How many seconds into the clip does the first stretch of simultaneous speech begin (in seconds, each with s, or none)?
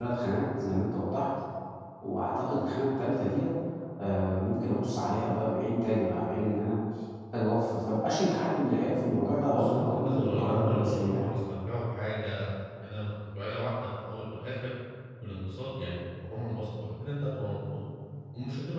9.5 s